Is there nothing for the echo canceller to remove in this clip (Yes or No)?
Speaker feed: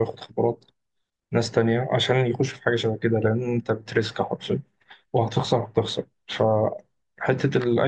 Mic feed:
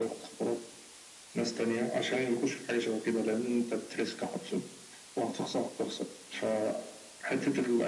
No